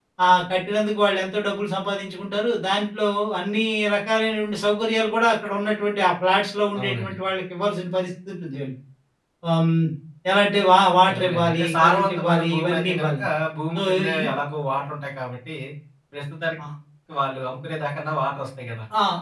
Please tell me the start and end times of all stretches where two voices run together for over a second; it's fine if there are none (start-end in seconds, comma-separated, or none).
11.1-13.1